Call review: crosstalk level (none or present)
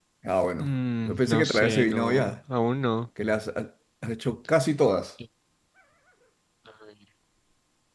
present